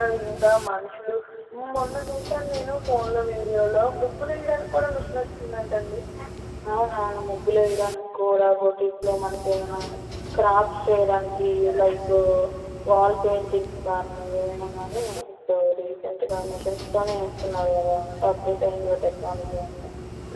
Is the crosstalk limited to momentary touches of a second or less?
Yes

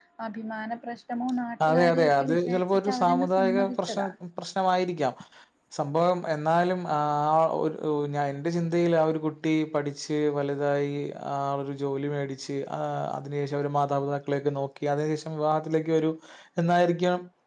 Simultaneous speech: Yes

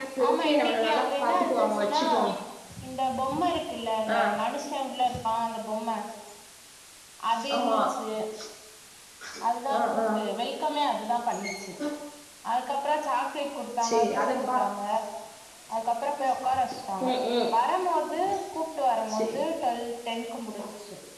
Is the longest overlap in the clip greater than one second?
Yes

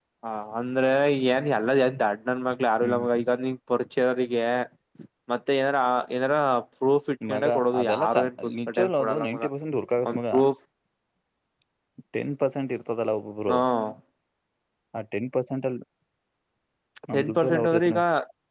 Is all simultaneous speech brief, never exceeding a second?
No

